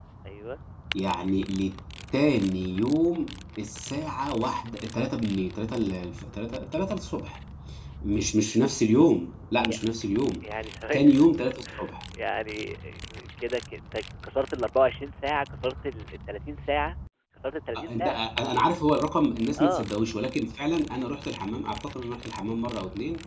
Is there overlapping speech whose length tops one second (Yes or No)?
No